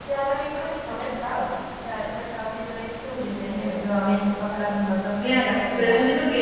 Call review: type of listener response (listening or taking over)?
taking over